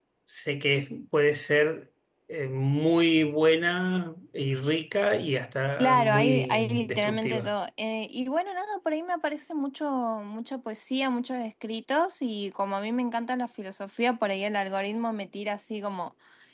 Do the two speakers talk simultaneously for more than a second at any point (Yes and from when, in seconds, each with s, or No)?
Yes, from 5.8 s